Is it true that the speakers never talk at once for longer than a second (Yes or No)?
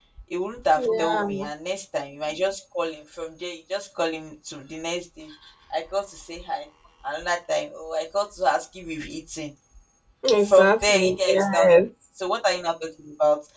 No